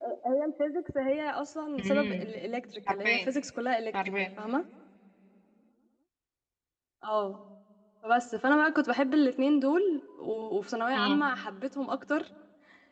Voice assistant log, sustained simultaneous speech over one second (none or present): none